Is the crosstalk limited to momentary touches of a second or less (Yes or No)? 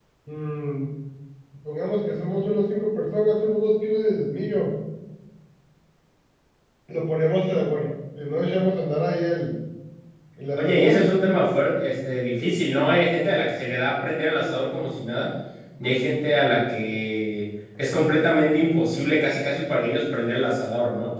Yes